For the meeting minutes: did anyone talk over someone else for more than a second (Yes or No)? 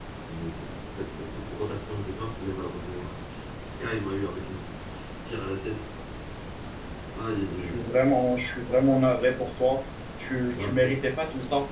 No